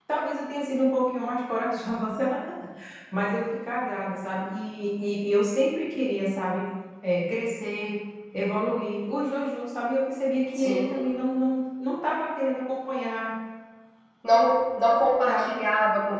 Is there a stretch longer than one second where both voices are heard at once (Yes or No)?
No